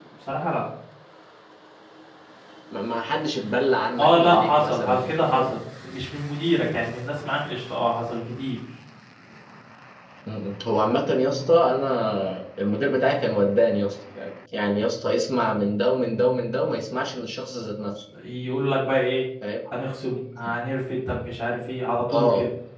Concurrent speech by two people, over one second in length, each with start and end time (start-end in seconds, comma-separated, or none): 4.0-5.4